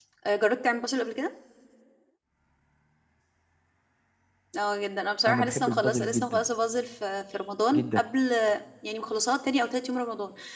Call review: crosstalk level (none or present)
present